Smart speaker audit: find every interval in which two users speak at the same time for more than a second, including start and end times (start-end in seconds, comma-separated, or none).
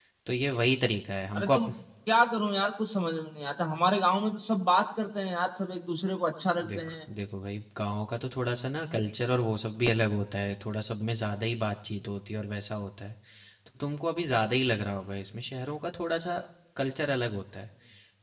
none